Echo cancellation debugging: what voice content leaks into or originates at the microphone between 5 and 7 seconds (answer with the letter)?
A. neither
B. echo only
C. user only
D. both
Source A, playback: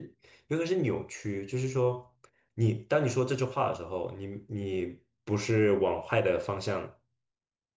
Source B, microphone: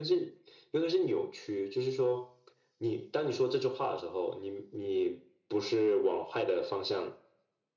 B